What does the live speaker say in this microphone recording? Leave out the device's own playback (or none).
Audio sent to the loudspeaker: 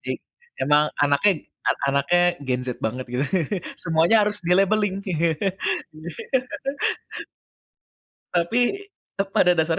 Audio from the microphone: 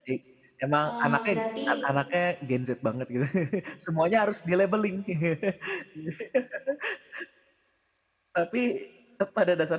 eee, berarti